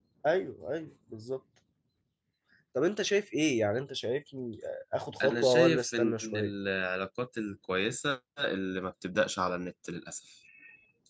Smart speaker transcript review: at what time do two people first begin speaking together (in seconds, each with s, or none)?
5.2 s